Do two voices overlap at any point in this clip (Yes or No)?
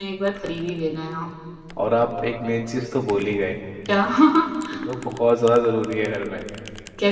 No